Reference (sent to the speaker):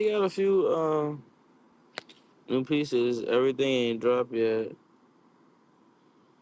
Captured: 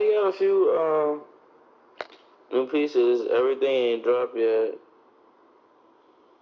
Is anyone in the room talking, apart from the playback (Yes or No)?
No